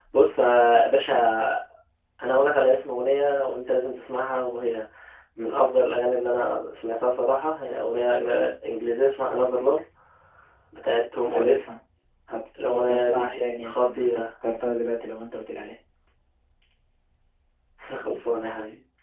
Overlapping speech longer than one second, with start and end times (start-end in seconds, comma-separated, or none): 12.7-14.2